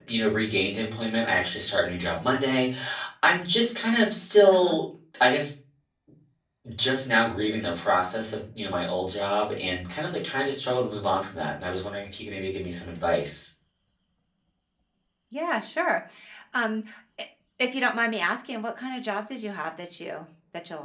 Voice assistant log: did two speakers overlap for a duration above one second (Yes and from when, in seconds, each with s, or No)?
No